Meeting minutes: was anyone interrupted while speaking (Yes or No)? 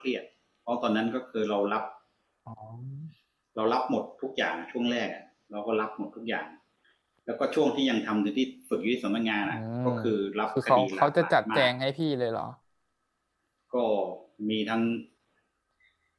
Yes